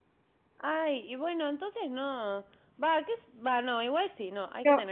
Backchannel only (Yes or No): No